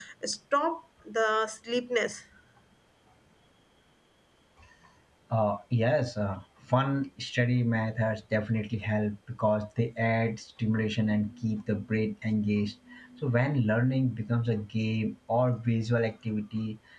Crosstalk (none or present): none